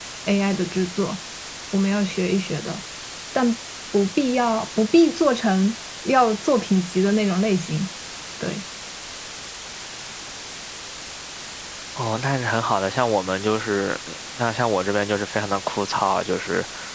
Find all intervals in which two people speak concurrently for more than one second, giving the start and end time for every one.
none

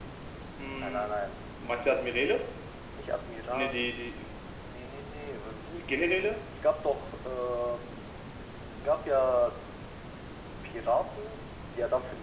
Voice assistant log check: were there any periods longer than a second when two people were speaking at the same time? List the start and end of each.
none

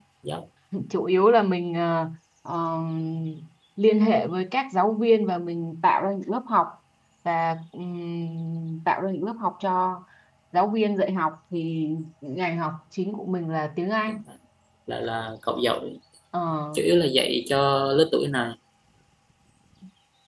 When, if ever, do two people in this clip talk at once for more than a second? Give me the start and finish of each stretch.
none

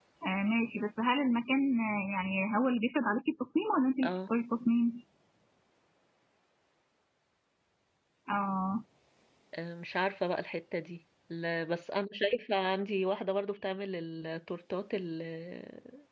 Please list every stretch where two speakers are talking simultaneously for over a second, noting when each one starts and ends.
none

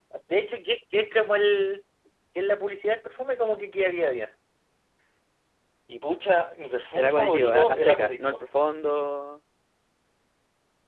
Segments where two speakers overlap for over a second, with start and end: 7.0-8.4

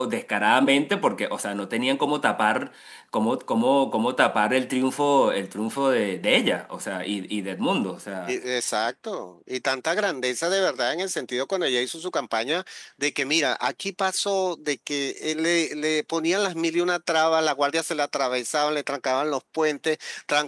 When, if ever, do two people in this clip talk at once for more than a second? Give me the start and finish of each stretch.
none

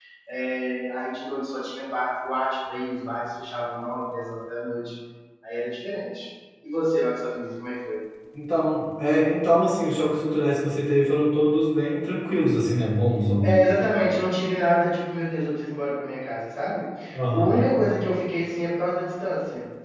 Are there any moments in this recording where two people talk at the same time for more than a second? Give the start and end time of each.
none

